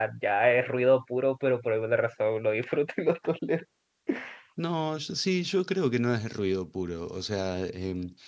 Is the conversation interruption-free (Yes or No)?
Yes